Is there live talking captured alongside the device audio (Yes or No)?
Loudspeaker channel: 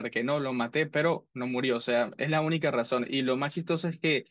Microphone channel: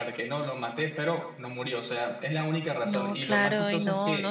Yes